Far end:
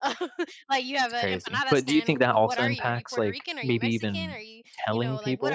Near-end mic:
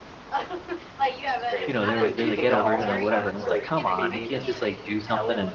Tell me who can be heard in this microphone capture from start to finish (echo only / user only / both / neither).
both